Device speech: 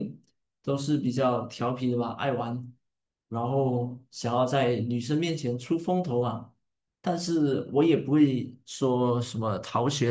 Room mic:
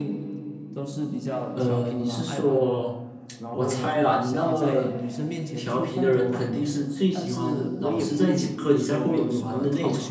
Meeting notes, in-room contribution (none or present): present